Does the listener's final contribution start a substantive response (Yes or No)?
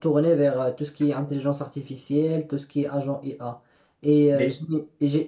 No